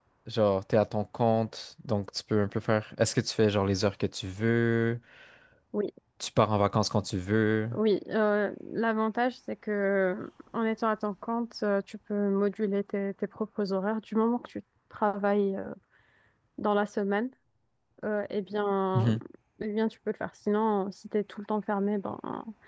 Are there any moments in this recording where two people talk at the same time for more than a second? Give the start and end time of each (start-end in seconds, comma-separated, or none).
none